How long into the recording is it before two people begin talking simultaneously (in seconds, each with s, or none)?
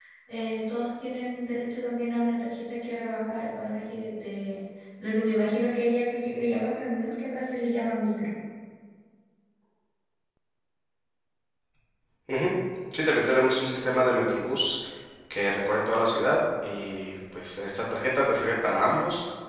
none